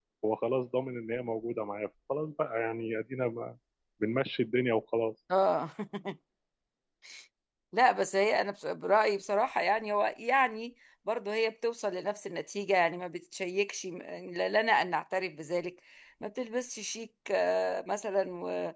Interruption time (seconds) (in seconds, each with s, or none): none